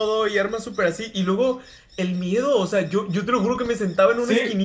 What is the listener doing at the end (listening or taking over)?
listening